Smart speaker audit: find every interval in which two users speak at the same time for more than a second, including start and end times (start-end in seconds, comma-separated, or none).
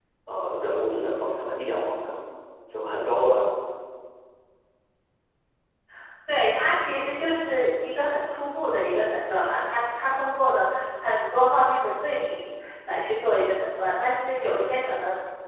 none